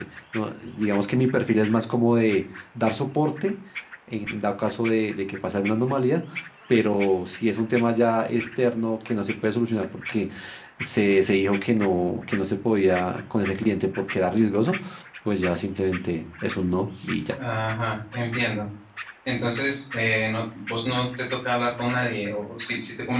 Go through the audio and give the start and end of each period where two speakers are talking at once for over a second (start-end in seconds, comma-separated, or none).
none